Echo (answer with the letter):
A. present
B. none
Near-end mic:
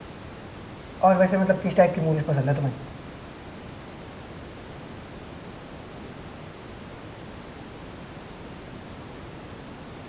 B